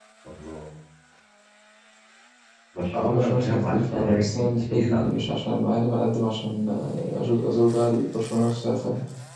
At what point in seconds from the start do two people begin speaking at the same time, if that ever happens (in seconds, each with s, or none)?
2.9 s